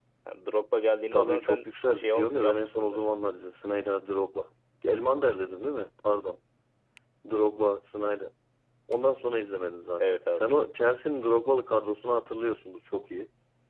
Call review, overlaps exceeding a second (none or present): present